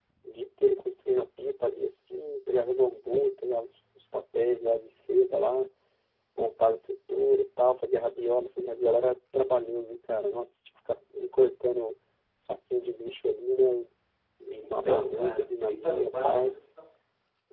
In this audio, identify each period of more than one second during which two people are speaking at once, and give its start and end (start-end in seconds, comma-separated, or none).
14.5-16.5